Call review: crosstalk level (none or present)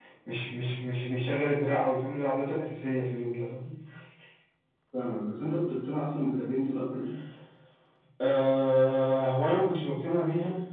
none